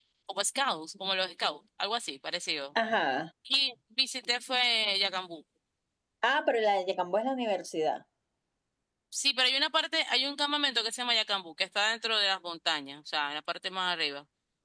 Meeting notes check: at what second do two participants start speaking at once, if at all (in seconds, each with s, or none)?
none